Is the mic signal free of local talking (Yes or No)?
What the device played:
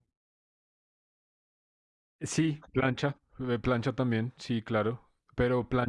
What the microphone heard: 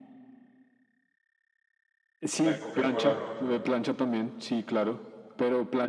No